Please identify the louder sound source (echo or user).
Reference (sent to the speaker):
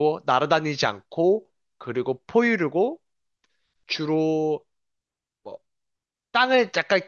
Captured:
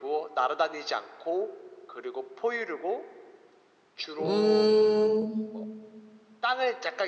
user